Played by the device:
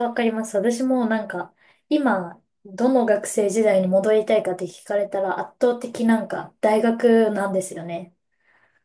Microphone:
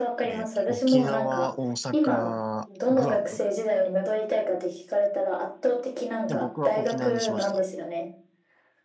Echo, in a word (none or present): present